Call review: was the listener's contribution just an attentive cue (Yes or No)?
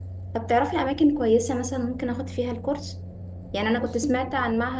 Yes